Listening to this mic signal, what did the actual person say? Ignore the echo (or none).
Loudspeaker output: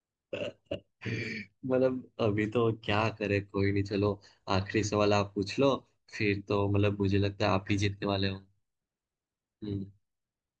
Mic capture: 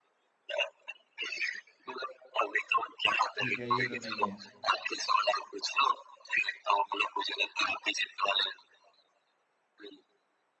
ठीक है ये तो नहीं है